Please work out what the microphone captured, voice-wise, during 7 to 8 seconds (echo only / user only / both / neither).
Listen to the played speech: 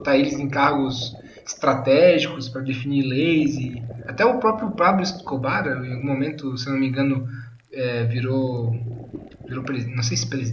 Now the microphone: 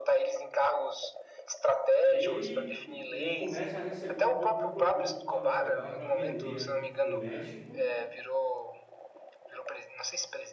both